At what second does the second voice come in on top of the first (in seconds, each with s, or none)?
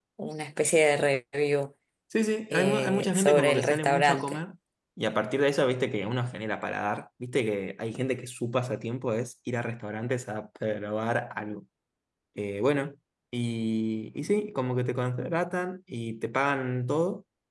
2.5 s